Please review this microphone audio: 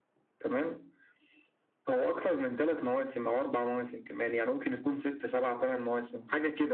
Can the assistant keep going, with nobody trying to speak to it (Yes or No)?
Yes